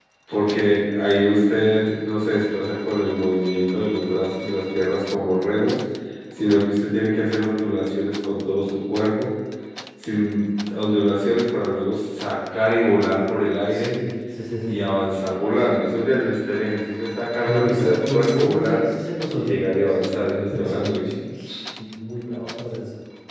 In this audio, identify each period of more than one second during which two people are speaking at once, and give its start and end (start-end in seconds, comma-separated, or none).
17.4-18.8, 19.3-21.0